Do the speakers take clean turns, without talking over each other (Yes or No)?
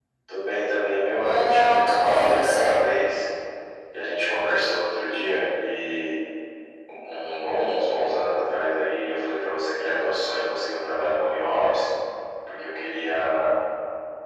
No